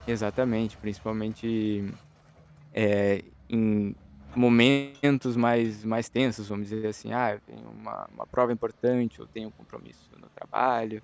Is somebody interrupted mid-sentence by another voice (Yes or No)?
No